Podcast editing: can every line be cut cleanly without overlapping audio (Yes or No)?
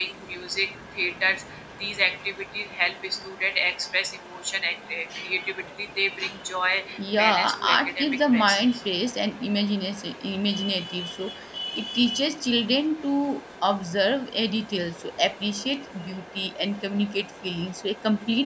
No